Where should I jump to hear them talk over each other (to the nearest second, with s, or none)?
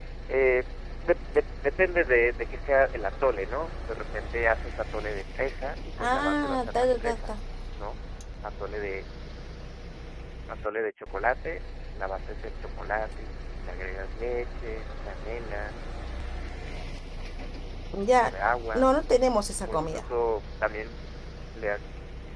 6 s